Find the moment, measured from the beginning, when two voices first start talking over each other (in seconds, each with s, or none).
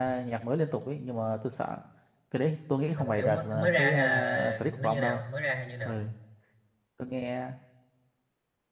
3.0 s